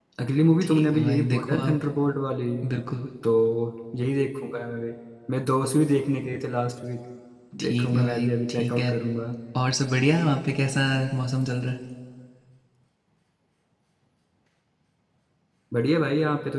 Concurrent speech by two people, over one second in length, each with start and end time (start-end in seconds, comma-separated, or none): 0.6-1.8, 7.6-8.9